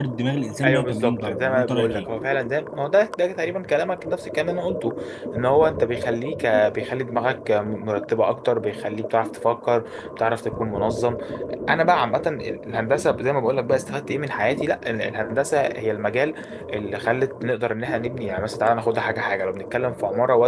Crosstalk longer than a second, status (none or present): present